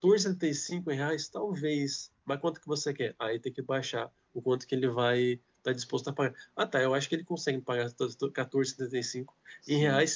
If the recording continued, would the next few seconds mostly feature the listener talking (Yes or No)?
No